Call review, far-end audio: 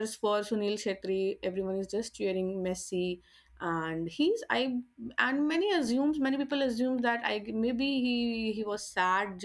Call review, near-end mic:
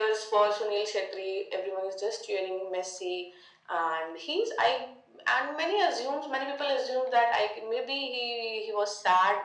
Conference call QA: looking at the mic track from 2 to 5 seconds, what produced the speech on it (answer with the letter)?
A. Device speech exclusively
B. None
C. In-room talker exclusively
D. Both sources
A